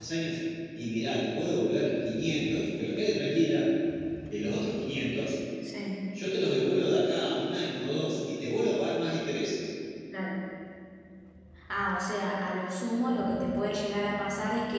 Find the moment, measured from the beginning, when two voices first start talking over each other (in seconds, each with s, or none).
none